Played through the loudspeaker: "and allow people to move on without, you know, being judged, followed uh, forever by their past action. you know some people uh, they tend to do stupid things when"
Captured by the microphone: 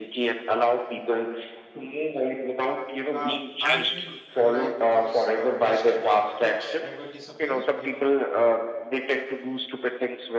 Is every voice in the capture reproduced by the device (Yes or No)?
No